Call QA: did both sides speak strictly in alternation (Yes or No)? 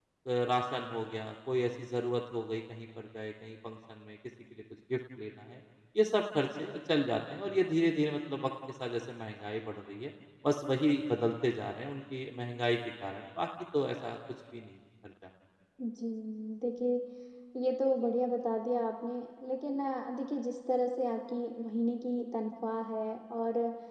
Yes